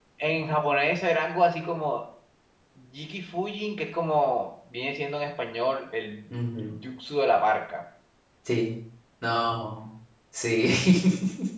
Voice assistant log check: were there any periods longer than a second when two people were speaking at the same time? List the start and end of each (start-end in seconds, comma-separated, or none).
none